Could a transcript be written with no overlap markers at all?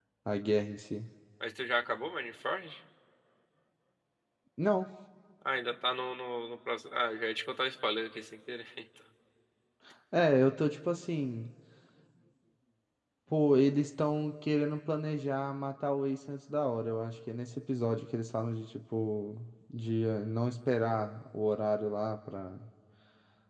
Yes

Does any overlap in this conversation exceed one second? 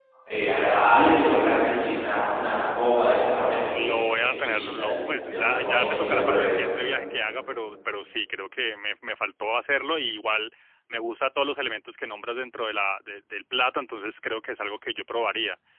Yes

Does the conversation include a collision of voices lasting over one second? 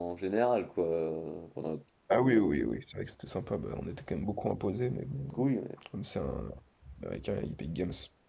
No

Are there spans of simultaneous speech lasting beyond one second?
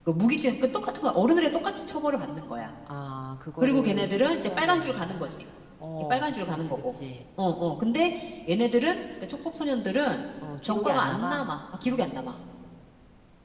Yes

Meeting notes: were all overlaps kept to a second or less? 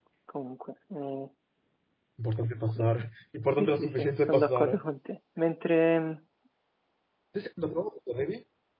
No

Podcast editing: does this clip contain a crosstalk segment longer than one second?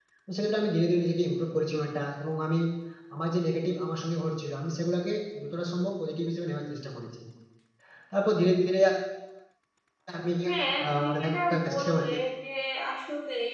Yes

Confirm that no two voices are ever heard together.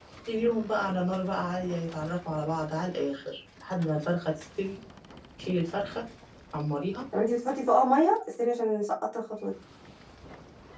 Yes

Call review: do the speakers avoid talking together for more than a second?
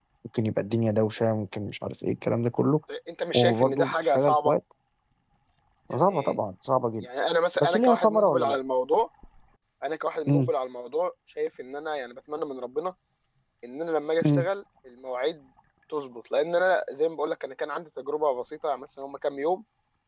No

